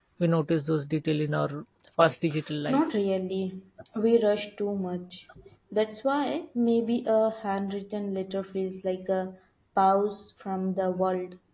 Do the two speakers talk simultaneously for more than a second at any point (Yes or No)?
No